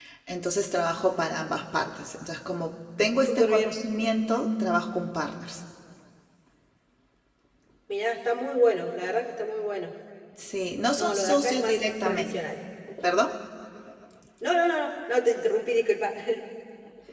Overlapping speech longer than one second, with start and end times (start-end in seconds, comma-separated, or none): 11.0-12.3